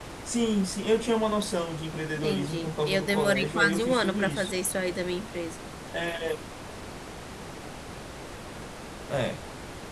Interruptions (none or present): present